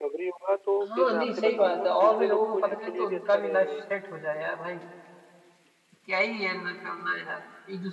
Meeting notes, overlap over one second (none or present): present